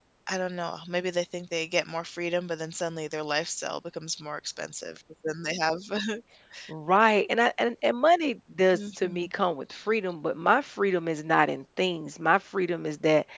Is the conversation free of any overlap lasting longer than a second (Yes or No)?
Yes